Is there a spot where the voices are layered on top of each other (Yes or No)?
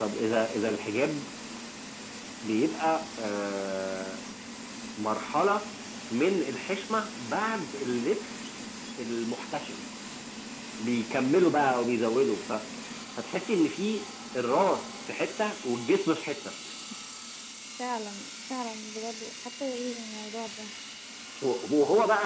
No